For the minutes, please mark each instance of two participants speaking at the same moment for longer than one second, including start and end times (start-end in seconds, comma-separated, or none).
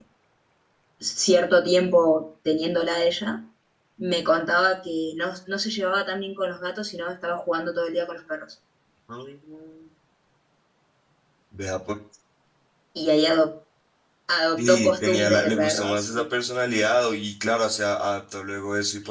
14.6-16.2